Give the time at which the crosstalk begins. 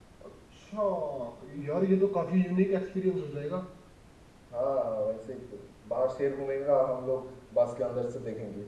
none

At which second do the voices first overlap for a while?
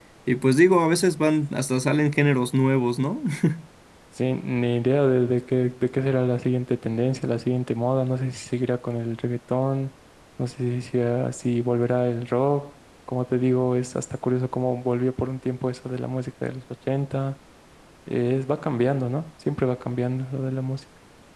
none

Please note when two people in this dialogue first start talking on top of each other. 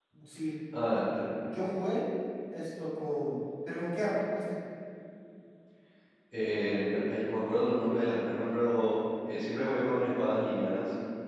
none

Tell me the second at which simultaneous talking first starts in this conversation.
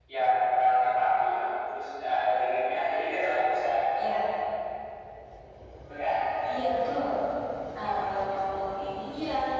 none

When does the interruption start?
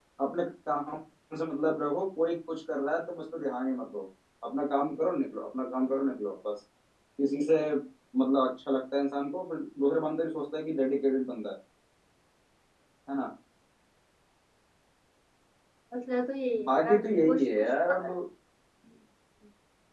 16.6 s

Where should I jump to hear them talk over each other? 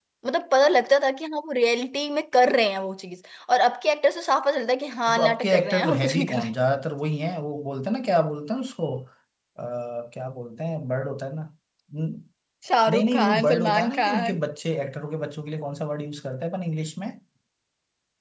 5.2 s

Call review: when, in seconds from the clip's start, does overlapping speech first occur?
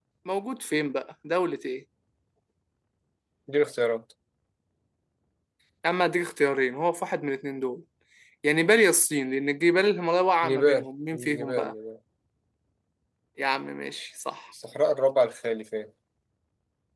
10.4 s

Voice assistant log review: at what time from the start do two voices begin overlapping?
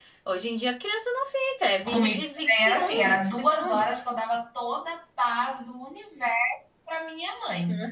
1.8 s

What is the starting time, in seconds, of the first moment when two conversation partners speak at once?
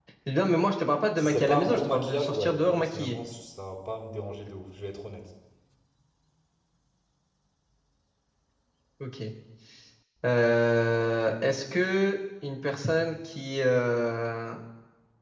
1.2 s

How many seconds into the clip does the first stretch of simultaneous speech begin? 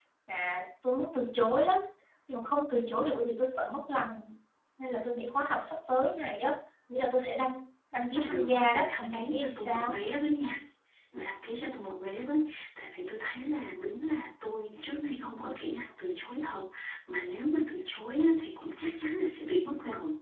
8.0 s

